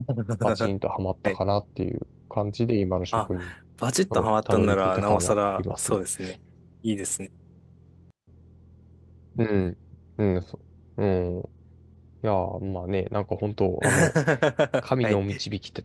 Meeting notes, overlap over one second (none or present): present